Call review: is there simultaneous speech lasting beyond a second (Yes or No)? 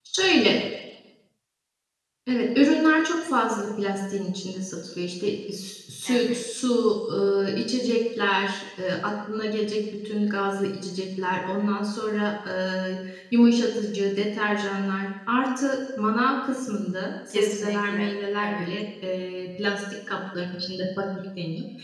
Yes